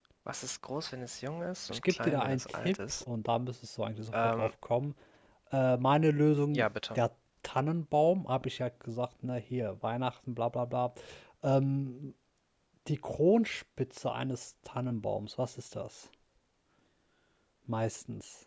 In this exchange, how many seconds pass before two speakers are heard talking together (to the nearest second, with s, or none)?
2 s